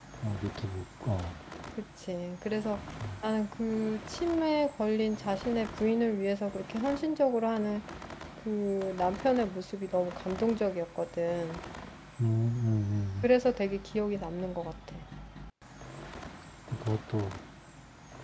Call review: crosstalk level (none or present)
none